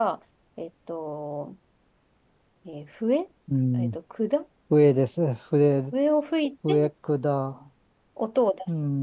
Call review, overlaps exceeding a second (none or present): none